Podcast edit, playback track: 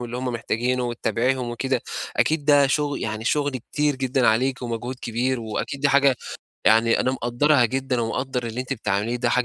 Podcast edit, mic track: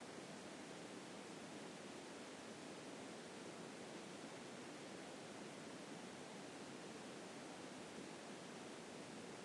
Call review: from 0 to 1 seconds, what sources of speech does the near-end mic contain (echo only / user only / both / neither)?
neither